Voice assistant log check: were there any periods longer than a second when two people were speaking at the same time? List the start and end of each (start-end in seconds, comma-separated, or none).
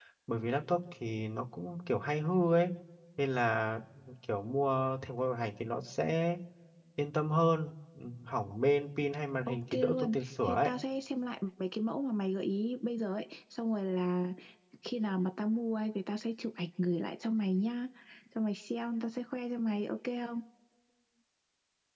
9.5-10.7